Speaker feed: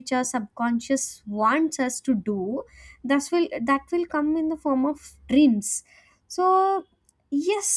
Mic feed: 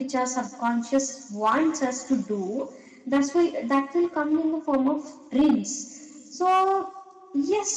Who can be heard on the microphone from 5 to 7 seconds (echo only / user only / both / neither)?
echo only